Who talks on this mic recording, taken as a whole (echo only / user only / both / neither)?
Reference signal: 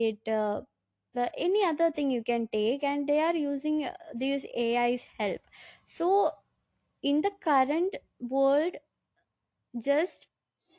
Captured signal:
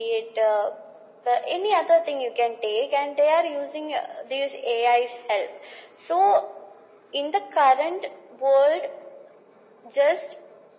echo only